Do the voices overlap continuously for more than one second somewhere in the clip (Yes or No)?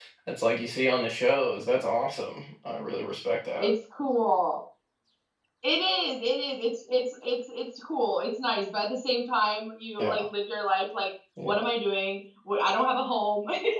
No